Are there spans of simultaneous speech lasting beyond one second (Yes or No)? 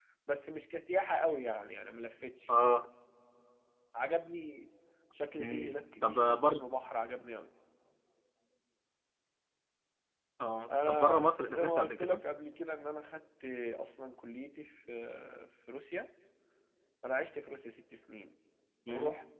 Yes